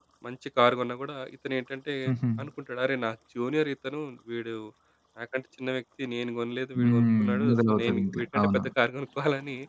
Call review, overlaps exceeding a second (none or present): present